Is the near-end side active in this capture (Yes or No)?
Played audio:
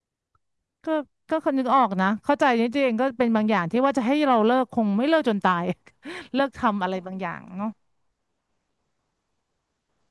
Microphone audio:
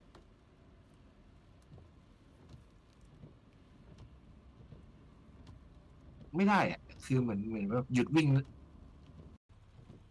Yes